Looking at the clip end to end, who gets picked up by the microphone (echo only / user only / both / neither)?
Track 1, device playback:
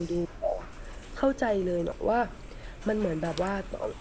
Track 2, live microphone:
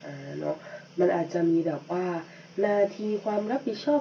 user only